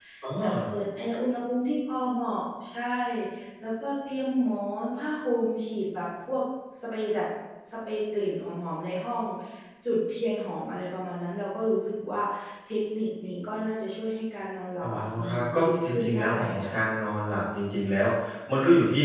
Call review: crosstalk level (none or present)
present